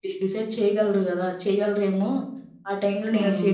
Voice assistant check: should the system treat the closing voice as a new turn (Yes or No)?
Yes